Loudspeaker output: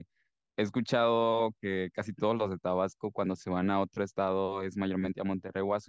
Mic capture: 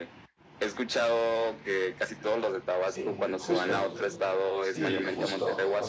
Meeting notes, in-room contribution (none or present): present